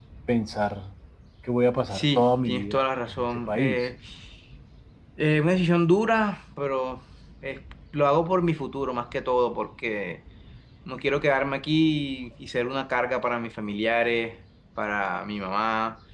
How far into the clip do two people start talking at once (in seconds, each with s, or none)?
1.9 s